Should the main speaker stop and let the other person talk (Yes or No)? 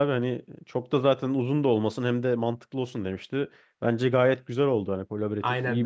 Yes